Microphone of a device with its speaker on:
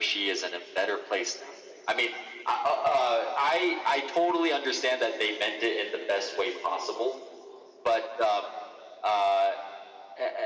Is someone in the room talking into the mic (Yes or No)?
No